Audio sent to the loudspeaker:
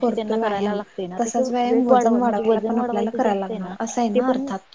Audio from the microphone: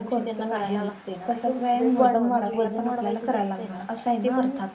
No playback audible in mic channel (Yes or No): No